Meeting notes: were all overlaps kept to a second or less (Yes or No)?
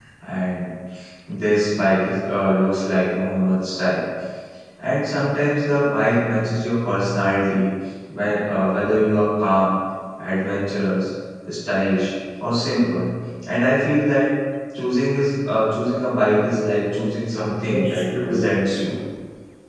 No